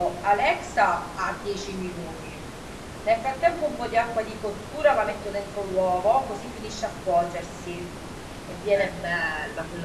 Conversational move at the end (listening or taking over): listening